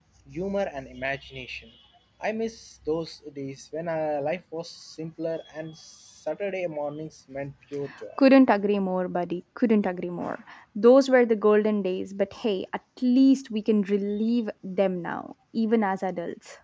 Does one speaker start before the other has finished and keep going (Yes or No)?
No